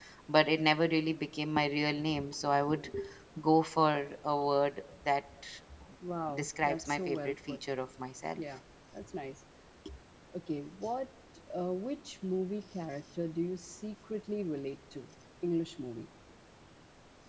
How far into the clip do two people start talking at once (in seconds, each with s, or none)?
6.3 s